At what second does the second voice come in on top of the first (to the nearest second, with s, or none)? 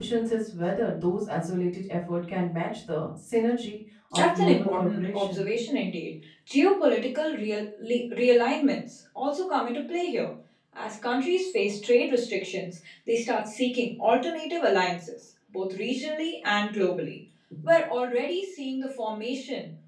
4 s